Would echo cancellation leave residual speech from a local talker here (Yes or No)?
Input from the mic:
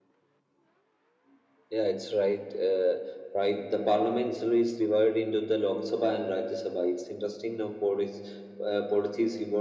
No